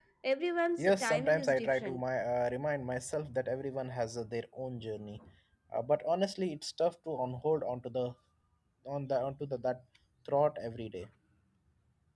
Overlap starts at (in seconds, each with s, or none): 0.8 s